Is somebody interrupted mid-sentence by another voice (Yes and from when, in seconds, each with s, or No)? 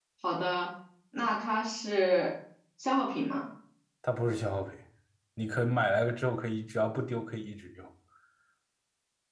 No